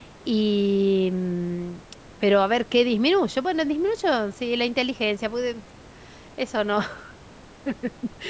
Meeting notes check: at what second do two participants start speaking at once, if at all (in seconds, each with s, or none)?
none